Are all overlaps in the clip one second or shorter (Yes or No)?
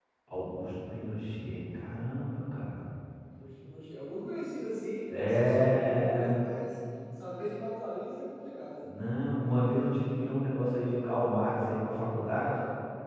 No